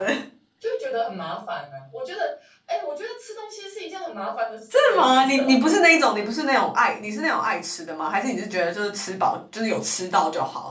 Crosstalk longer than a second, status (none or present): present